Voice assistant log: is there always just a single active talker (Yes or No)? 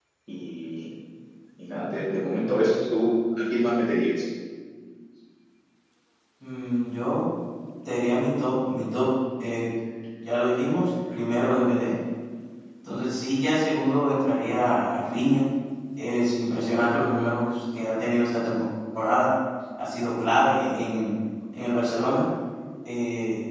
Yes